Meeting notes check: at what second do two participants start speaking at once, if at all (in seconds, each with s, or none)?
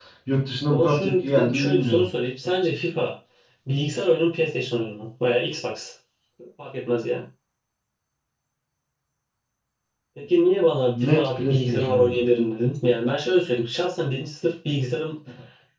0.7 s